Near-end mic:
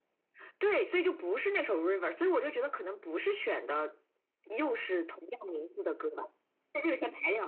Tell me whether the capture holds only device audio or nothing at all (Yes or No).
Yes